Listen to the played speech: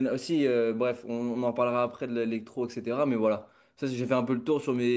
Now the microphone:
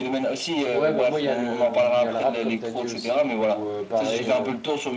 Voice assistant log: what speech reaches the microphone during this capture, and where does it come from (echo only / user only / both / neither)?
both